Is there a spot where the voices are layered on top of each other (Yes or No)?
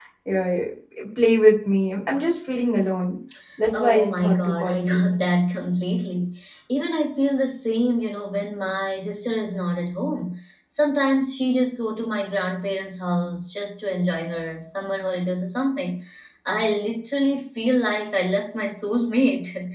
Yes